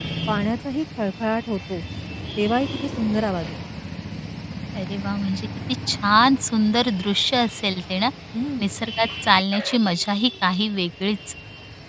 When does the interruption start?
none

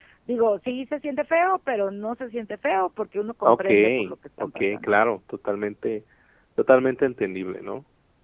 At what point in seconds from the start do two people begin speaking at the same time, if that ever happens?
3.4 s

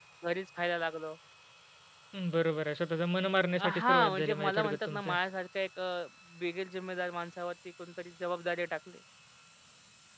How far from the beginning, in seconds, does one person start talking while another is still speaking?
3.6 s

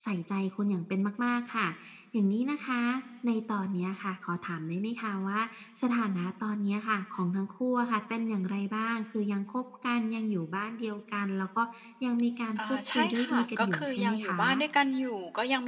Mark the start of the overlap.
12.6 s

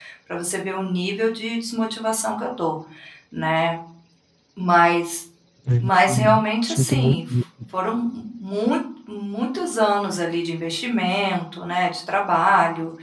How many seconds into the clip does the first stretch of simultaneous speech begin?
5.8 s

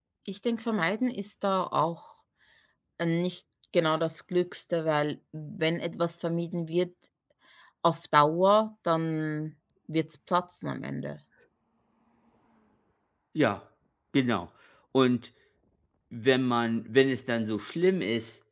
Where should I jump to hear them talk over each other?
none

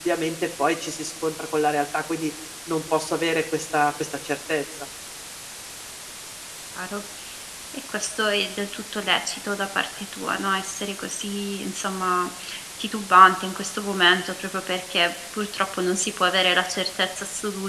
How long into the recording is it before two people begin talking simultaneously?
none

